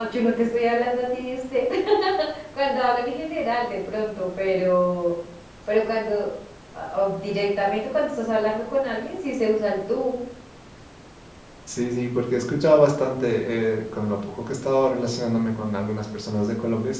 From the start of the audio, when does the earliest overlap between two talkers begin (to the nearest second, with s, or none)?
none